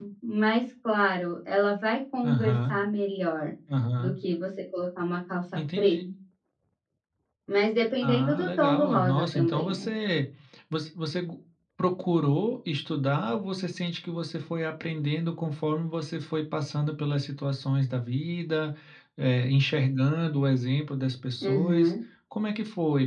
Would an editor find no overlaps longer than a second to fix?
No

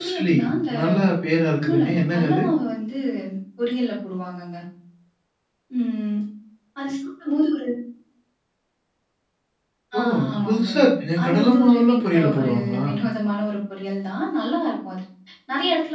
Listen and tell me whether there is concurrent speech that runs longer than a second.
Yes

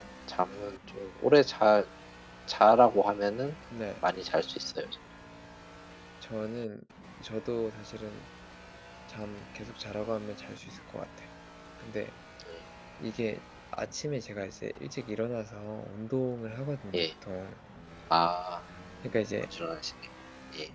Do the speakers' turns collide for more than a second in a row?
No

